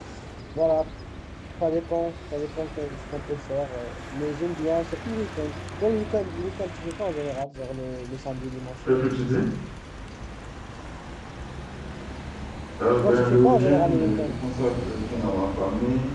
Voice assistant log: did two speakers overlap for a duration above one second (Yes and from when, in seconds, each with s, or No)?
Yes, from 13.0 s